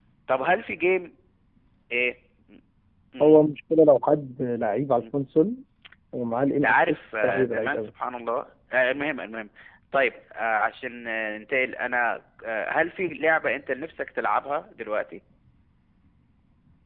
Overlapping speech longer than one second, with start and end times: 6.6-7.9

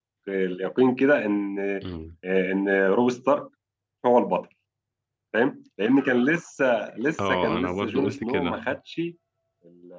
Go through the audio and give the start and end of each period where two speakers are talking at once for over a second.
7.3-8.6

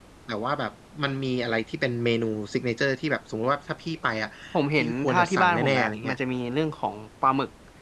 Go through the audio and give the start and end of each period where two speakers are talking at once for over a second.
4.8-6.2

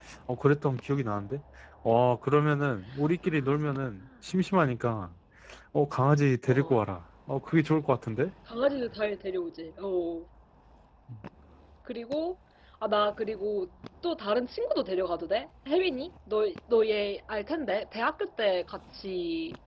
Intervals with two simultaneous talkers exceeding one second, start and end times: none

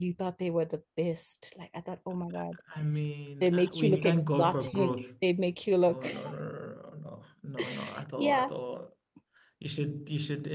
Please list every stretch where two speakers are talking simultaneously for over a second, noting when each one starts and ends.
3.4-5.0

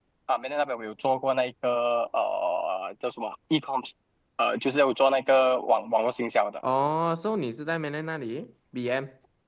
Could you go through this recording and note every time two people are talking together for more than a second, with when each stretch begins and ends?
none

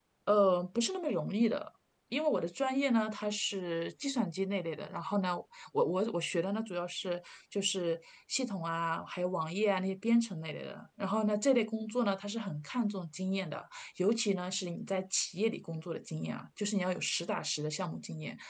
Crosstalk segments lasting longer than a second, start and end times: none

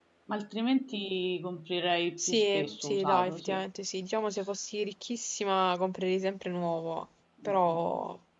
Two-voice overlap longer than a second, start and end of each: 2.2-3.6

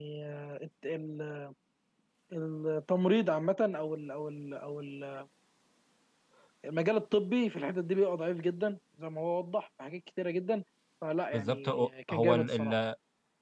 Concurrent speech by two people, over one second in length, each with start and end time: 11.3-12.7

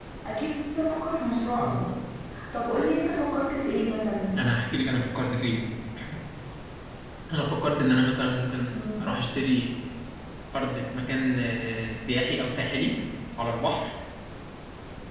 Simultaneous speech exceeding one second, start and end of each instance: none

